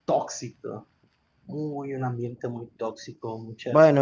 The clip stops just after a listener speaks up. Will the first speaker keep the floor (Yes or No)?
No